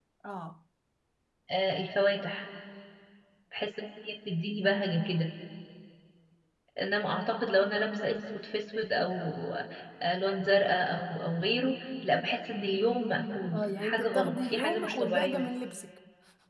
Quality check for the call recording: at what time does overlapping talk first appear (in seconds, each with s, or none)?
13.5 s